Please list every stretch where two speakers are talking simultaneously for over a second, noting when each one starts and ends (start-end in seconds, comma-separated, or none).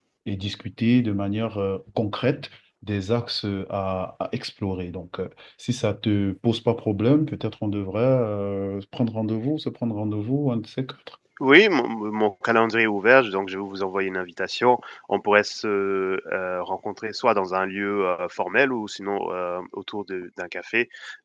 none